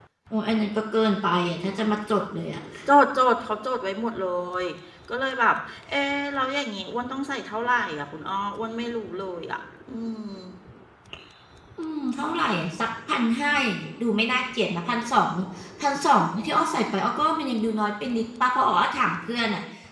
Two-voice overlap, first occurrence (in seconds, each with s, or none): none